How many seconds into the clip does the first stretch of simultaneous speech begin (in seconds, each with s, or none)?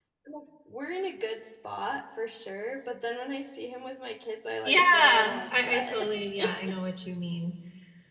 4.7 s